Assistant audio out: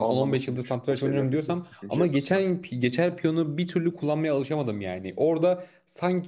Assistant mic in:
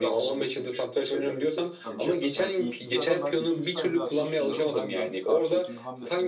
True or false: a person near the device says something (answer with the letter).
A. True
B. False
A